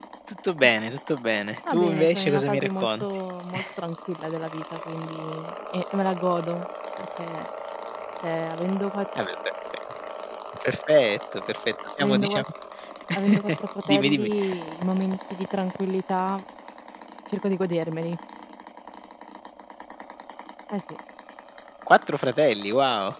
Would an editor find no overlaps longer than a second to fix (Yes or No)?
No